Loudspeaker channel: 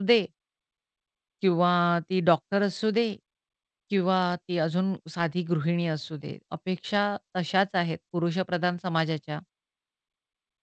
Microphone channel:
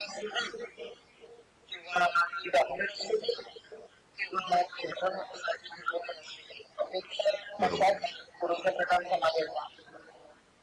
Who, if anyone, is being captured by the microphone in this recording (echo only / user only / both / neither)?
both